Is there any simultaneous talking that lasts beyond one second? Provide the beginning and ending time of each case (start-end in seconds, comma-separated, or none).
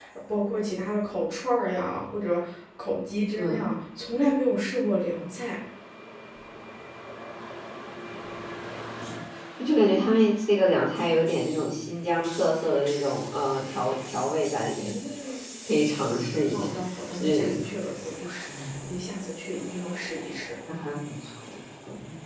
none